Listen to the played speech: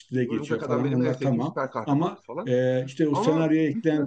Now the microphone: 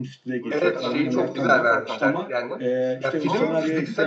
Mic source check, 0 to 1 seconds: both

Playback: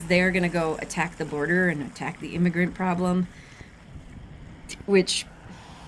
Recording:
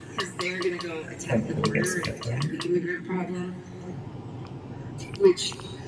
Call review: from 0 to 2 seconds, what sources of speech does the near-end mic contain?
both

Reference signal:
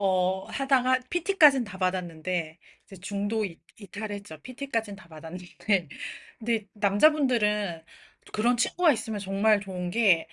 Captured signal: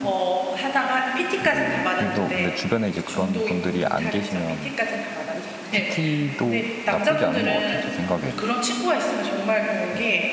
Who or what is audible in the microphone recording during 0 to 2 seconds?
both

